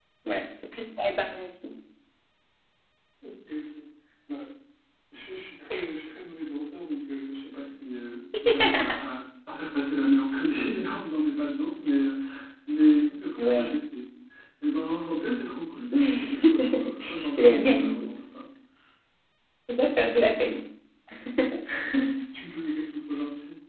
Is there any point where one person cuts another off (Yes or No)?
Yes